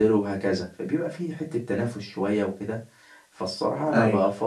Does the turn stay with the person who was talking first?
Yes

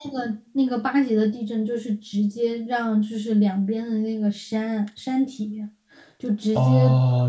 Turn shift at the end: Yes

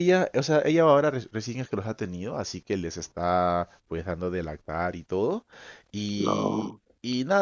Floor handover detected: No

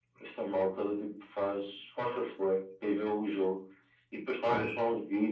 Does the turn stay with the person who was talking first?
Yes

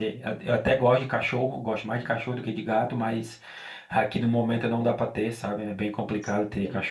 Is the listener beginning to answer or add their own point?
No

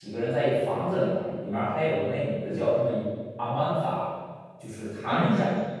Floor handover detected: No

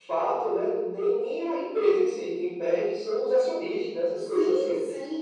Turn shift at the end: Yes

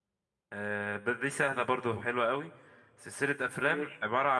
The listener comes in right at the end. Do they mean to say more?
No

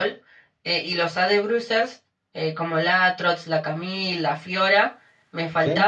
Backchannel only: Yes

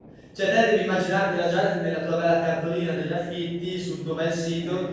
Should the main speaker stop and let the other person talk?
No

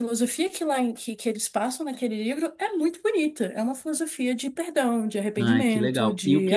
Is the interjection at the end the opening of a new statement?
Yes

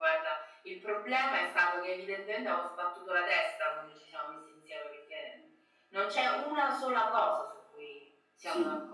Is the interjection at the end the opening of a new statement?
Yes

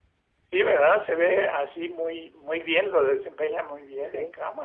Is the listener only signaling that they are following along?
Yes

